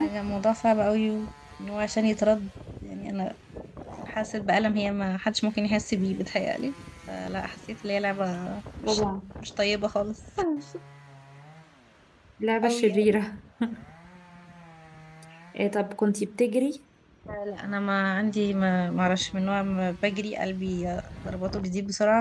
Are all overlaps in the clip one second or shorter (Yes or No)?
Yes